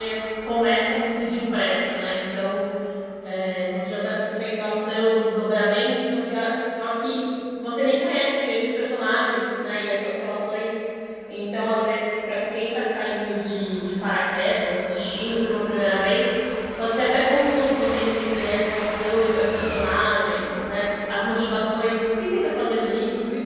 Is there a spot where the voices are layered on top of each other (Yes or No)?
No